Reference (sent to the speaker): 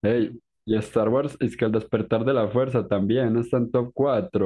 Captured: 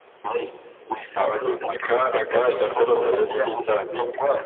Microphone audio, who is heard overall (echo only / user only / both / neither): both